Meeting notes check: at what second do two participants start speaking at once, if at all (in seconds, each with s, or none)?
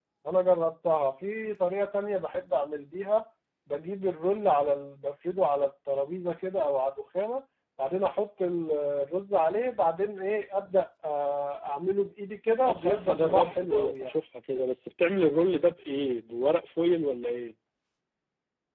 12.6 s